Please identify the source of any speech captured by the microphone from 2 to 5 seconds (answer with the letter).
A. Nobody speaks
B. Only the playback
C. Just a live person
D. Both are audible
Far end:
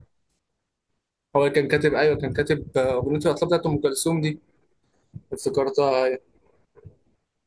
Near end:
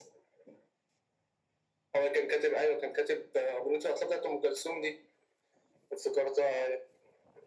B